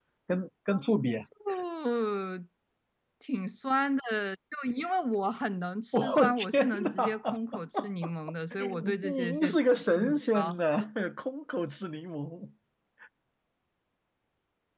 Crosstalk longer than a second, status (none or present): present